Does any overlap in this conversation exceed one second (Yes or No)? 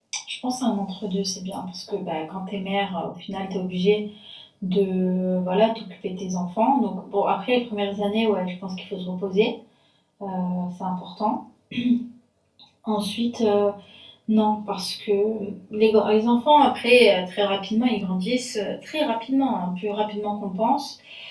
No